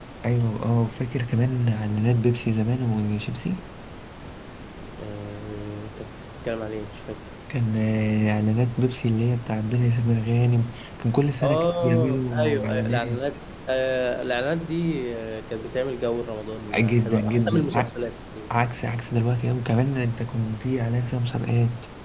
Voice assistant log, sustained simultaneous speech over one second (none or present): present